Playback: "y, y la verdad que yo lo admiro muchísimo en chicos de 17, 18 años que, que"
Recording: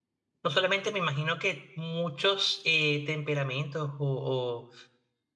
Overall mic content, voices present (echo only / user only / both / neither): user only